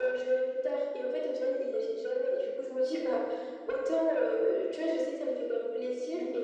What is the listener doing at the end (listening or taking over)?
listening